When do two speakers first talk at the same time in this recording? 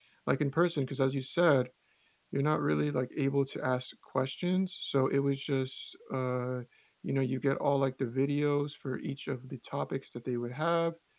none

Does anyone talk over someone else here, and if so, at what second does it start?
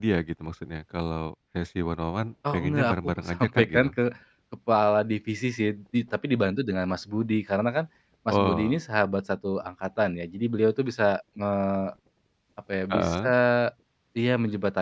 3 s

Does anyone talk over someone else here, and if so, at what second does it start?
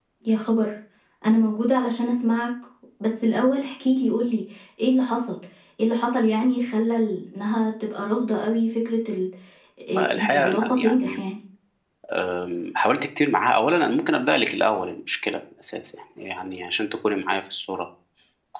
10 s

